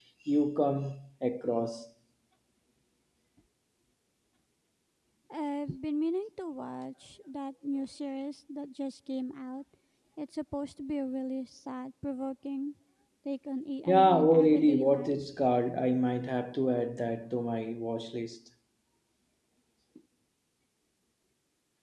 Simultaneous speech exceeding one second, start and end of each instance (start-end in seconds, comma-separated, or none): 13.9-15.3